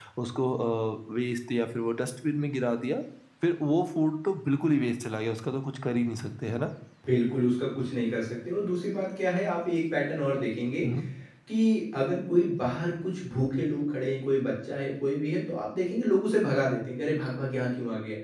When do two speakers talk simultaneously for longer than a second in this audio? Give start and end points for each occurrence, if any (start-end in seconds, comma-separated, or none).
none